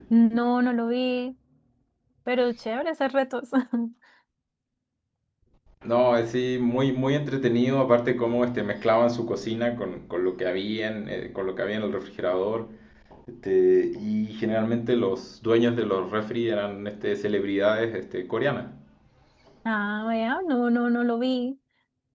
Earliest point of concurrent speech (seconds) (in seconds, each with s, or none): none